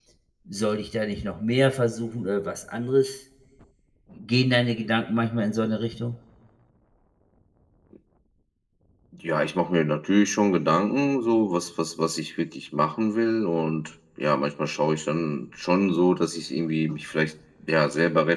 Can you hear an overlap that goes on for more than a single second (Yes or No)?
No